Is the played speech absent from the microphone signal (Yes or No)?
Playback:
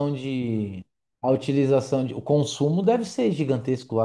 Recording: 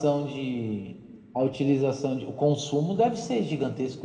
No